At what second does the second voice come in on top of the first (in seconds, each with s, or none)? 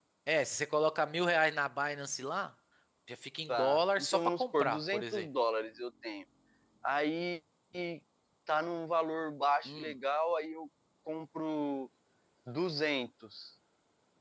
3.5 s